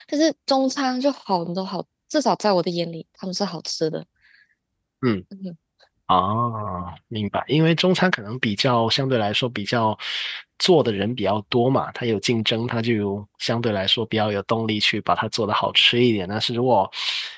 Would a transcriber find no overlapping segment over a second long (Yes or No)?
Yes